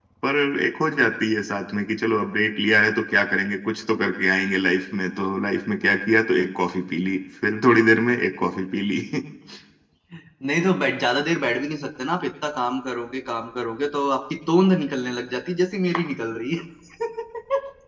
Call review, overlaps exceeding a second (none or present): none